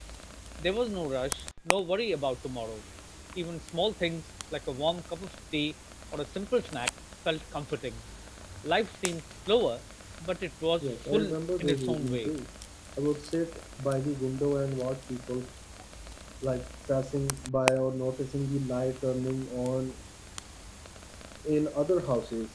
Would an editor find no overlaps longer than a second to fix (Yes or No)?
No